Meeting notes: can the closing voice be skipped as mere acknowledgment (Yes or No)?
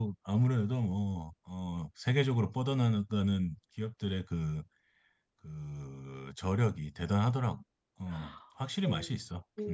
No